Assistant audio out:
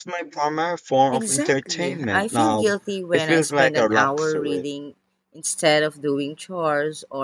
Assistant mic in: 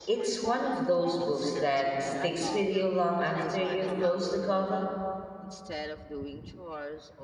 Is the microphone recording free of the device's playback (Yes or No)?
No